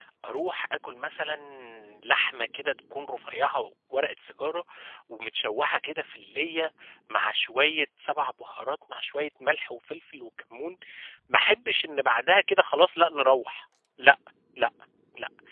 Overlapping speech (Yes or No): No